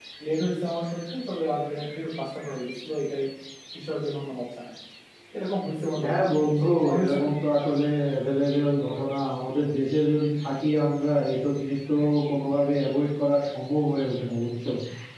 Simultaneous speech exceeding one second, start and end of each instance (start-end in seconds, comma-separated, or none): 6.0-7.3